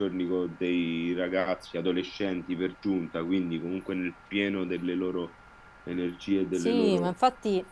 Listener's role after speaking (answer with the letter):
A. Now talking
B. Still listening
A